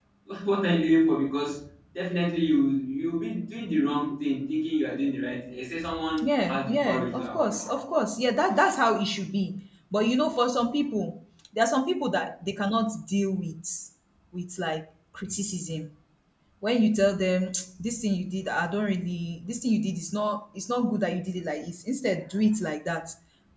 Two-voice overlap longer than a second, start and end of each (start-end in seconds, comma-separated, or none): 6.2-7.5